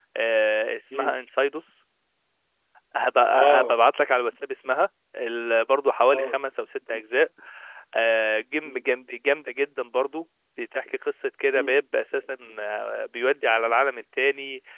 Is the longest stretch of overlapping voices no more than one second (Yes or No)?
Yes